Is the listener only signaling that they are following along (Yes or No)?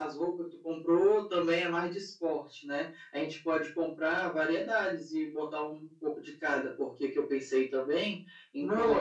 No